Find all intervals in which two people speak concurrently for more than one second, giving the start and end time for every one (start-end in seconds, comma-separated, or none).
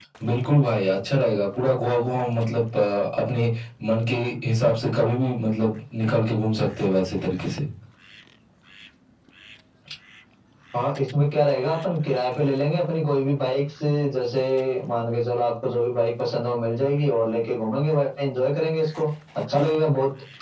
none